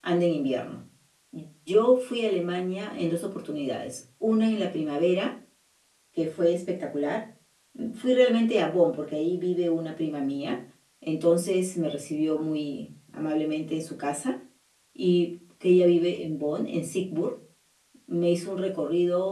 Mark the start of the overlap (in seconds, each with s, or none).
none